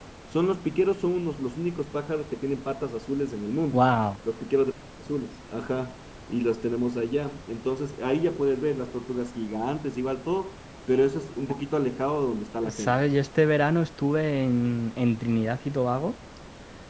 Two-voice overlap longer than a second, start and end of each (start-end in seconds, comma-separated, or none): none